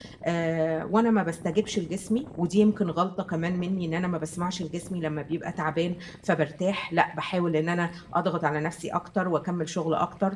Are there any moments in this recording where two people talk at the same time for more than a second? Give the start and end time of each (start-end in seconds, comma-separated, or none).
none